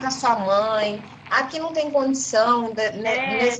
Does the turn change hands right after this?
No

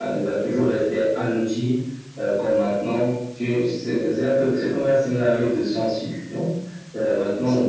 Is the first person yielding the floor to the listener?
No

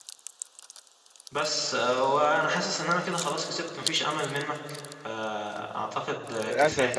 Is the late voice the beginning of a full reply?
Yes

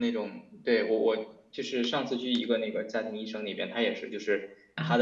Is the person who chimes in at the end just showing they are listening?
Yes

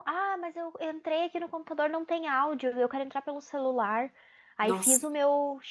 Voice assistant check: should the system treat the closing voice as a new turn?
No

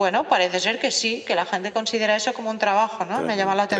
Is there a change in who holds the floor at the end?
Yes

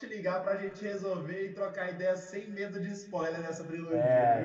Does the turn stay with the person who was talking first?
No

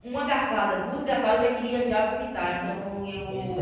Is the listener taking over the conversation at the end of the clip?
Yes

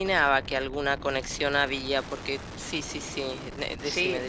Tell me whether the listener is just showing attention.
No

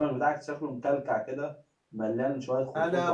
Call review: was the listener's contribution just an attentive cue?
No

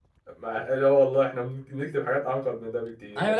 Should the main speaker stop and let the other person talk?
Yes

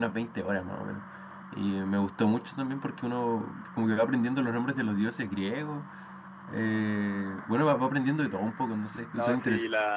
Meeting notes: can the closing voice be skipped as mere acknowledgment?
No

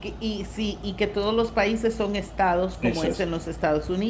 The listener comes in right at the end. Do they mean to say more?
No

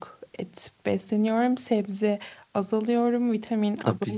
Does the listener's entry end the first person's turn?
Yes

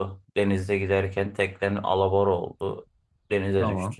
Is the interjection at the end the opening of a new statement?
No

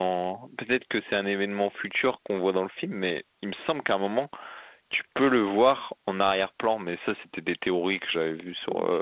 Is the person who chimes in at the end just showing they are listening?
No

